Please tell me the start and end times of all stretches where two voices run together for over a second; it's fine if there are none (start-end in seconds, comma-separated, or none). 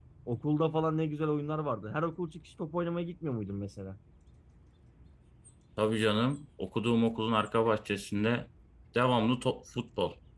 none